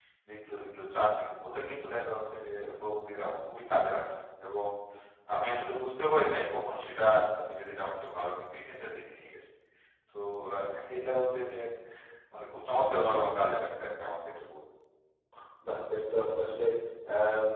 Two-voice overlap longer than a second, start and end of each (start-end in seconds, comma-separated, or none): none